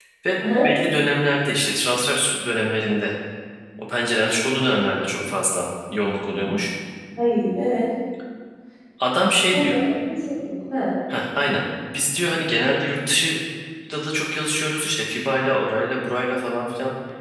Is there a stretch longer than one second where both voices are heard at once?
No

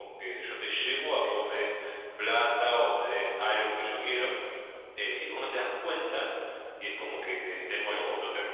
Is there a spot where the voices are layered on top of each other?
No

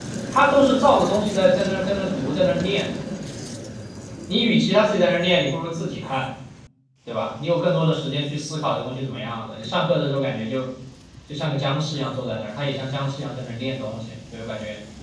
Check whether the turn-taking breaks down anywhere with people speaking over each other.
No

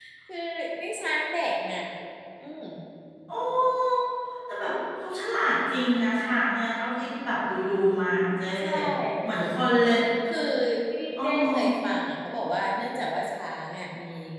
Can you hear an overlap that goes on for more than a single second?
No

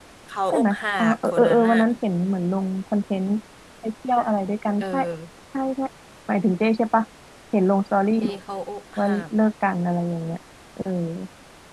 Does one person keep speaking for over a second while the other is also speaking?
Yes, from 0.5 s

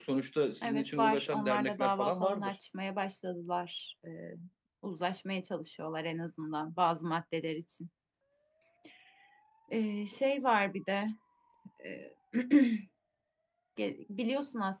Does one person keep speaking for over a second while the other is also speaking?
Yes, from 0.6 s

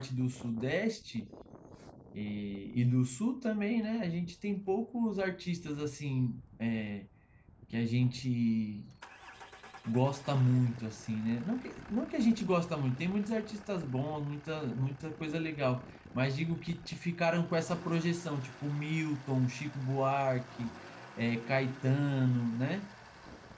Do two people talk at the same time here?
No

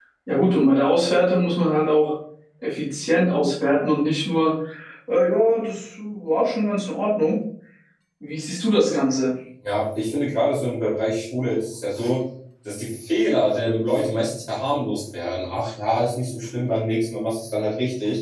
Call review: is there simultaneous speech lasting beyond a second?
No

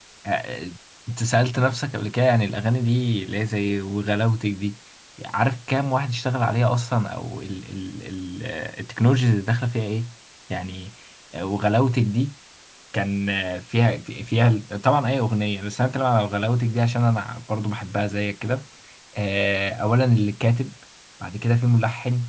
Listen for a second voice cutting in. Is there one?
No

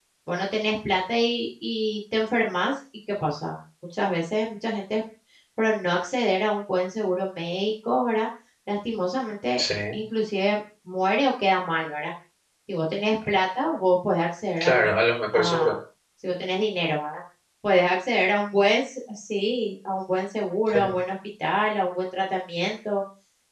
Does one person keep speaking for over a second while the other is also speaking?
No

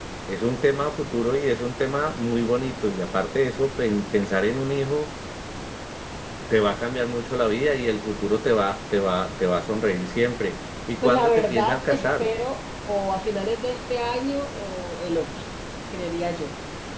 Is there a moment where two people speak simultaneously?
Yes, from 11.0 s

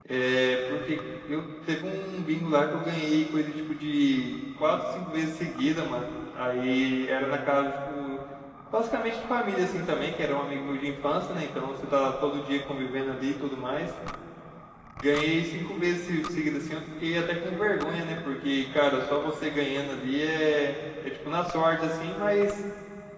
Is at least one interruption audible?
No

